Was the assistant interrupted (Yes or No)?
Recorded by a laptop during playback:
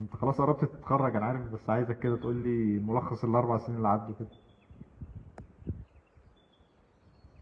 Yes